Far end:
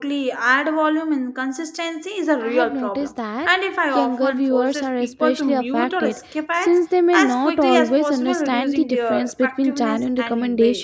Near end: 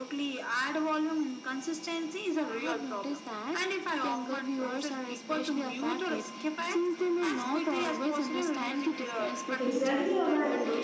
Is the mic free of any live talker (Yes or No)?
No